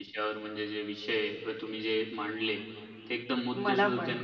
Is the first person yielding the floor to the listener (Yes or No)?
No